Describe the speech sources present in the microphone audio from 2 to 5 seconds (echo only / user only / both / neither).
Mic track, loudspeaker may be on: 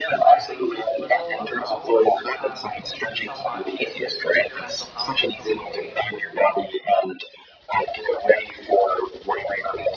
both